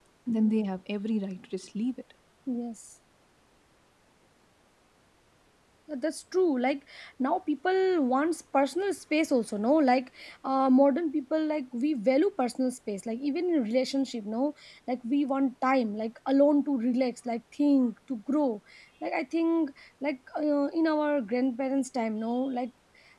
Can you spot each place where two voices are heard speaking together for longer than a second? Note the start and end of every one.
none

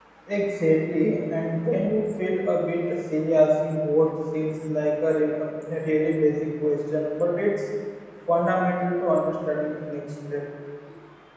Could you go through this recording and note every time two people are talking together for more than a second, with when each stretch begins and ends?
none

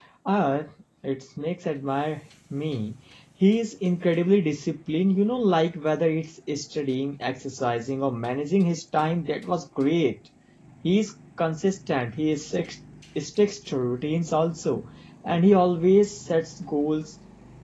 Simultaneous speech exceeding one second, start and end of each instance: none

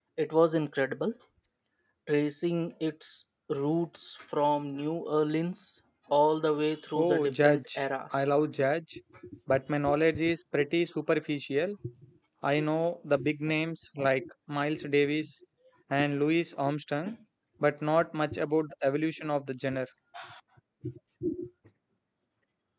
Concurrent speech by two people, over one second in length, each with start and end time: 7.0-8.3

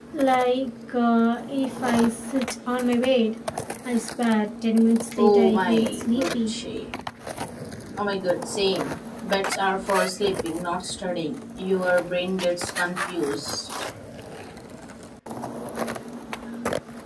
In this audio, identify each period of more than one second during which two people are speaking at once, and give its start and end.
5.2-6.5

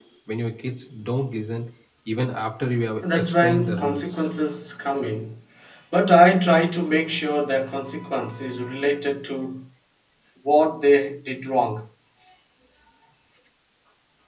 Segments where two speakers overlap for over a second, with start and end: 3.0-4.3

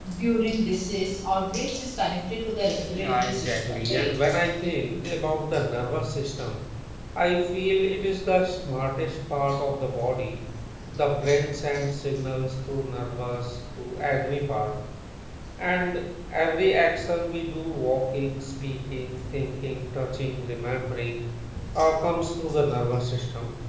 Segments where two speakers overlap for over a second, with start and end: 2.9-4.2

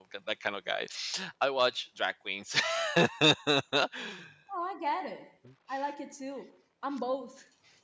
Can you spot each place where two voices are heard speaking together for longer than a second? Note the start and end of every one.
none

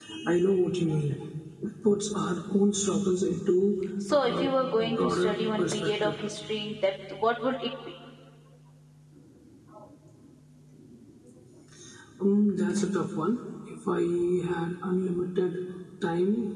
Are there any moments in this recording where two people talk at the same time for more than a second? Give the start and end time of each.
4.1-6.1

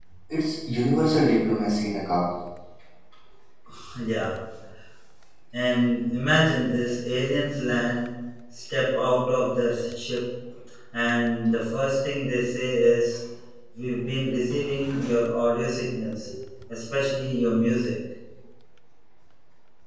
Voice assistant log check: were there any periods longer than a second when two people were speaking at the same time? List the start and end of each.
none

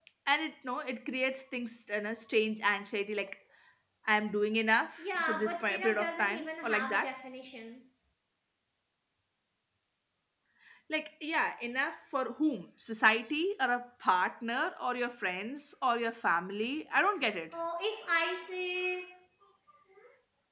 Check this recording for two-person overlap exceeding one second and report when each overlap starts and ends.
5.0-7.1

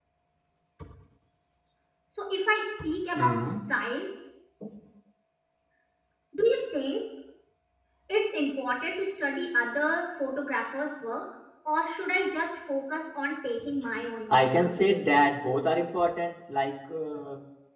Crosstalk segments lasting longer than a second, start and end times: none

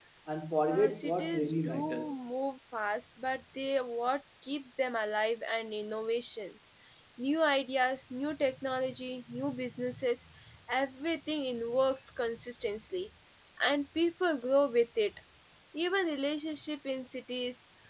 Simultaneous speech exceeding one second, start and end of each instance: 0.7-2.1

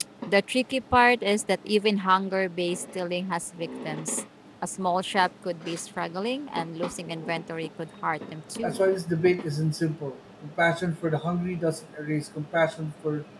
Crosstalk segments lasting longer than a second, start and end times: none

